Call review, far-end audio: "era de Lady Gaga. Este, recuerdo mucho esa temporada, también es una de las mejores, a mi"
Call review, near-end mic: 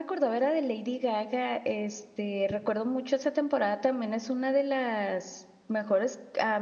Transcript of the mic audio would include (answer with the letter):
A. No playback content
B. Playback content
B